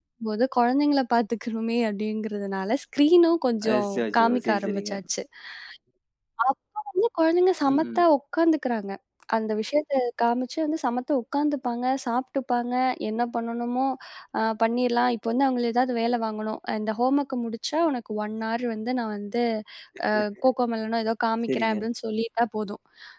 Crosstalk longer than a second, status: present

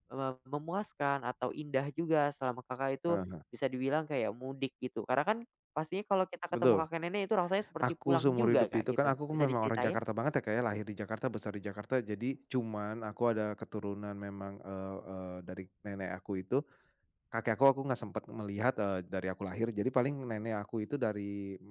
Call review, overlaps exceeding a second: present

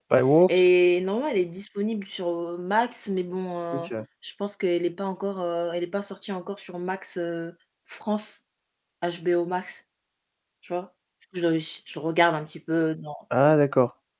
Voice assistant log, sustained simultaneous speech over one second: none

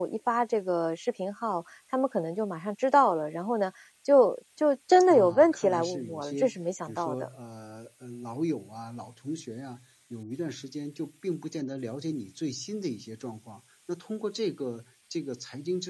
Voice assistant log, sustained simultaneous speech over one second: present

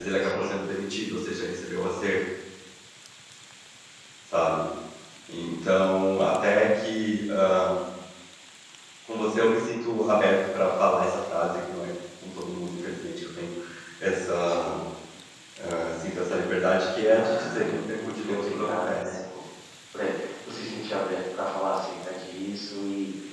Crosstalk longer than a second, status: present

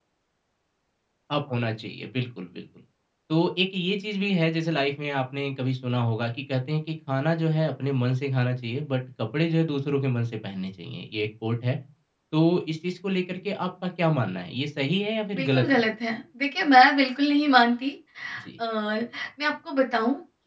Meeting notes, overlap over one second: none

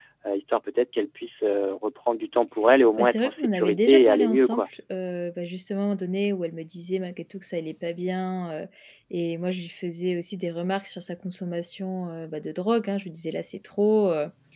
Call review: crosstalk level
present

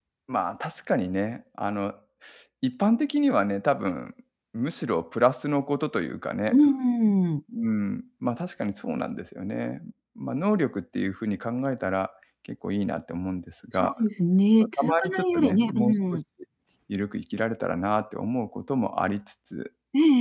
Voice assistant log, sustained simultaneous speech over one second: present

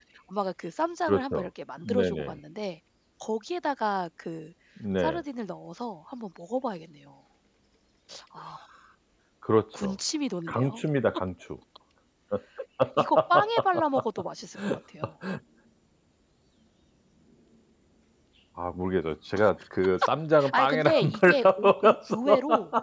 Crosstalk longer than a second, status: present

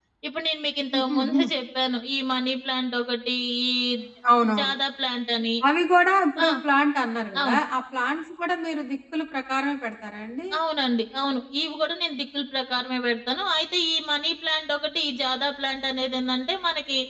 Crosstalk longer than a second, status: none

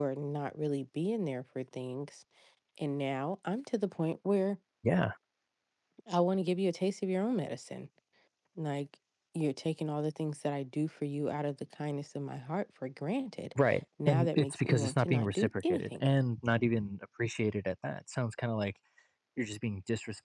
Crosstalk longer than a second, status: present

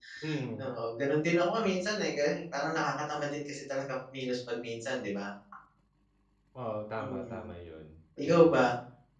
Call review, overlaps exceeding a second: none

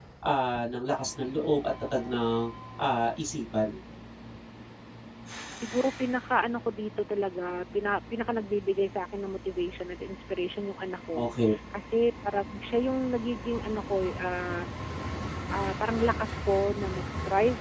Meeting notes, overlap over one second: none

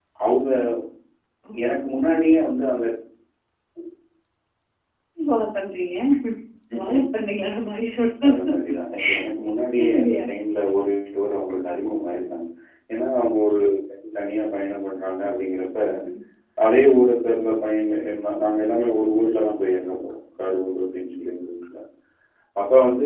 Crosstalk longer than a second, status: none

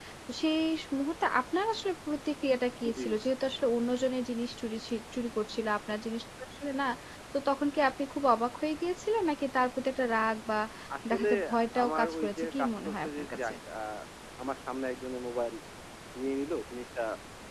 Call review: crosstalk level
present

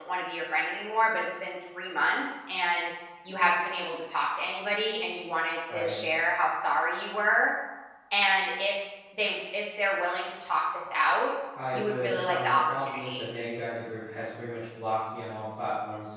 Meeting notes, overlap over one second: present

